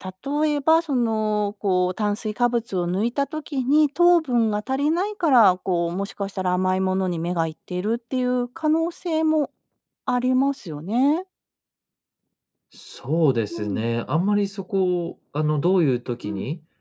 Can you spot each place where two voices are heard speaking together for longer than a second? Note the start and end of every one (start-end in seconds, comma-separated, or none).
none